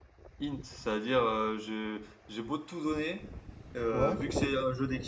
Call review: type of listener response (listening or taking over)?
listening